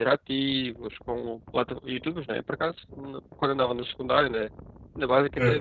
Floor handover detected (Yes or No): No